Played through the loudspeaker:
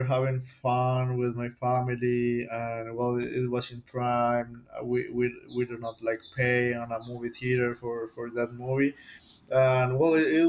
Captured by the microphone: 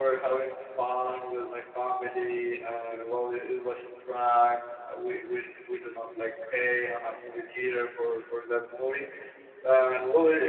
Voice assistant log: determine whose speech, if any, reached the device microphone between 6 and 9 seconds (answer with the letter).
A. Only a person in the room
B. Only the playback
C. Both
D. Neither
B